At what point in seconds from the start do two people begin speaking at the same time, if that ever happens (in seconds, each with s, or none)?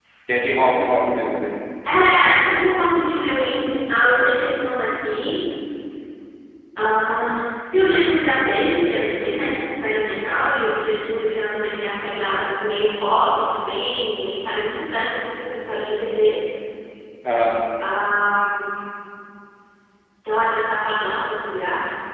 none